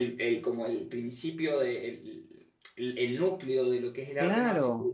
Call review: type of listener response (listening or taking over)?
taking over